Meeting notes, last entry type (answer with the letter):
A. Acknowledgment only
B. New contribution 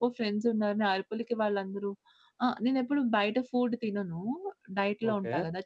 A